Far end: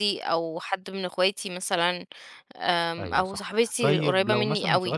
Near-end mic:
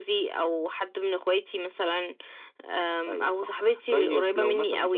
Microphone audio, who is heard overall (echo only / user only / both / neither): echo only